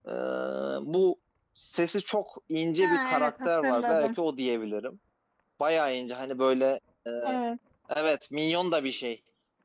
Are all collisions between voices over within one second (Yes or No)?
No